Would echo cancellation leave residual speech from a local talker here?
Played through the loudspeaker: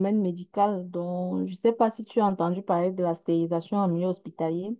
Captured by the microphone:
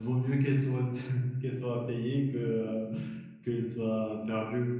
Yes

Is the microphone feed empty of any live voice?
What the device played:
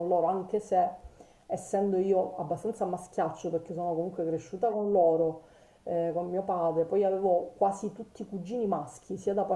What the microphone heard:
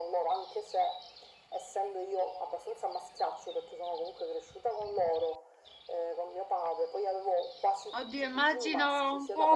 No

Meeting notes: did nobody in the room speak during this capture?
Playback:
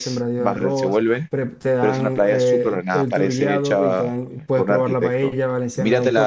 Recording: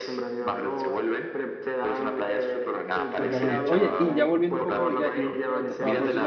No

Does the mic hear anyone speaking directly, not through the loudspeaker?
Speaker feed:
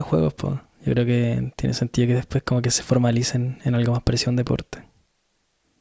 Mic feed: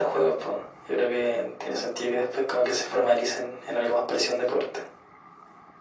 No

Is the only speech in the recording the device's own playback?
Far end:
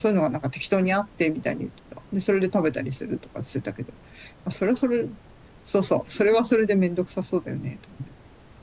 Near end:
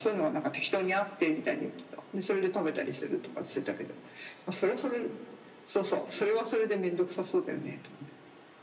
Yes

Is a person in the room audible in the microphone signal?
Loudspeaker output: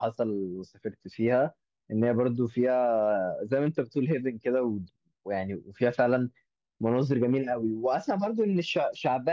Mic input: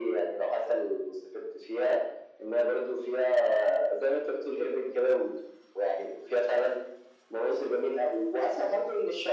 No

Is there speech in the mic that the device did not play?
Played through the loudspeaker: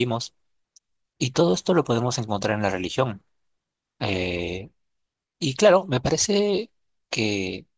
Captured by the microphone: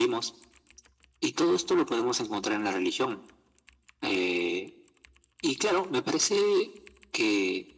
No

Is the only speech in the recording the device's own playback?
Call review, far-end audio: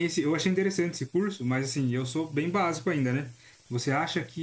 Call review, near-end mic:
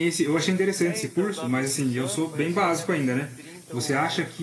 No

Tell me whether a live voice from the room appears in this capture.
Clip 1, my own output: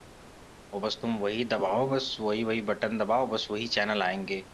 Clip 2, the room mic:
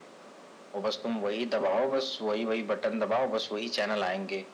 No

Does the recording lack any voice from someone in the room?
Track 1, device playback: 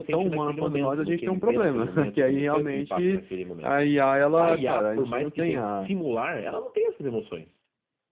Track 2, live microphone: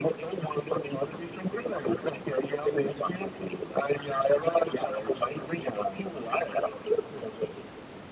Yes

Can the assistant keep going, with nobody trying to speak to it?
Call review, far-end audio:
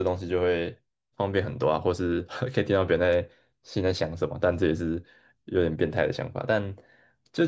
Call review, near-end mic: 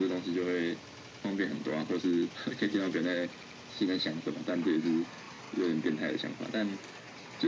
Yes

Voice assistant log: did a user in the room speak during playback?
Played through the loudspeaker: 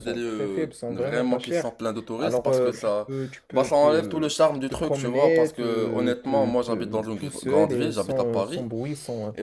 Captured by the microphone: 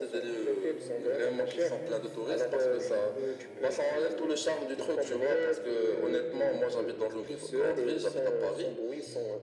Yes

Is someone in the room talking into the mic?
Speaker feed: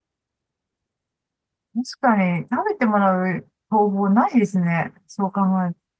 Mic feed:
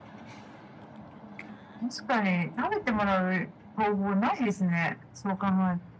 No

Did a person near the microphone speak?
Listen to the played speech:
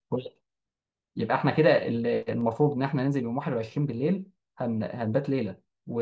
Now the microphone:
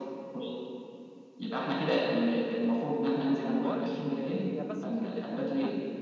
Yes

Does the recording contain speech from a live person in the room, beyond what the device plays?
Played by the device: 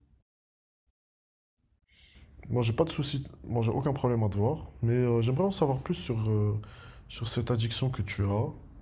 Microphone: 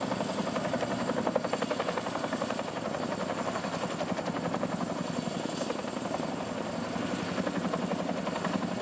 No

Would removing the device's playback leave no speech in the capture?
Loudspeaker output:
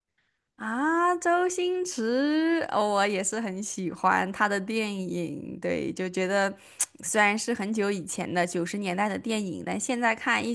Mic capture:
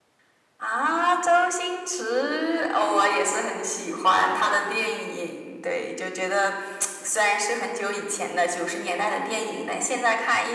Yes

